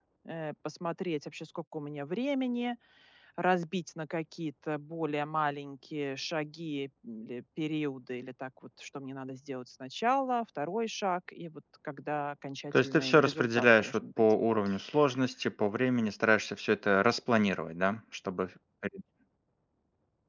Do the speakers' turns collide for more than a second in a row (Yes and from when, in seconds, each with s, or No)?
Yes, from 12.7 s